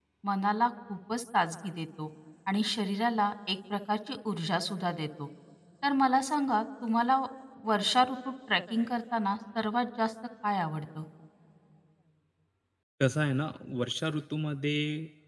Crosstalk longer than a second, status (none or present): none